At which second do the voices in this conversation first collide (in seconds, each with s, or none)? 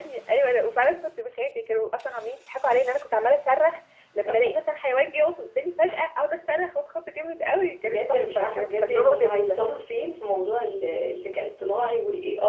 7.8 s